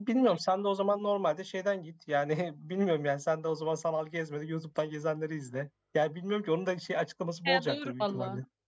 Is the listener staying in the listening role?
No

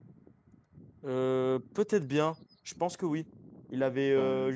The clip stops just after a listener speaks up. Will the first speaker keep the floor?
Yes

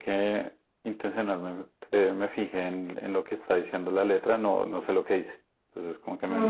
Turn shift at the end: Yes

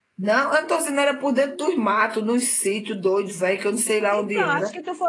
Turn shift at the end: Yes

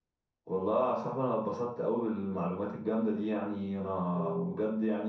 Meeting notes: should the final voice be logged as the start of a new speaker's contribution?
No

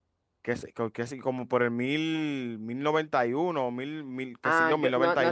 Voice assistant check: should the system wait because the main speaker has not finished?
No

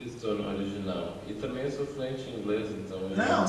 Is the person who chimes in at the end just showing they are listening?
No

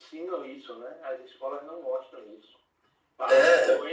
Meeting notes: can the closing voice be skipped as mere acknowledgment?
Yes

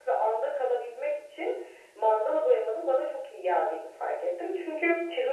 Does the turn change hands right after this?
No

